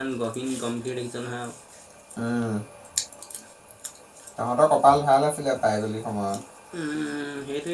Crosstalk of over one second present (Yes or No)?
No